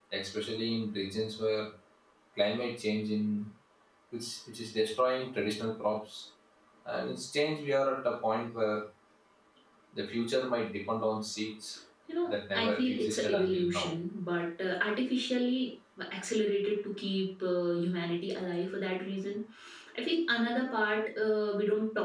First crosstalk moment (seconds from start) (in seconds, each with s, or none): 12.3 s